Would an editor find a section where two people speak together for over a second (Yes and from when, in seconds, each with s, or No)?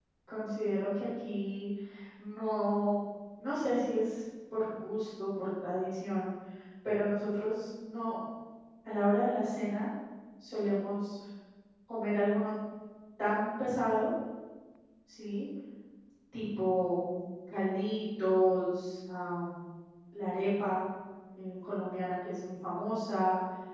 No